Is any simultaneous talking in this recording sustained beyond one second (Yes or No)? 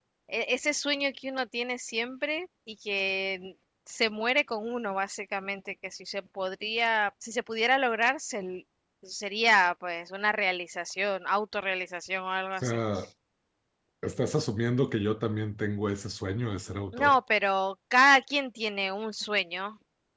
No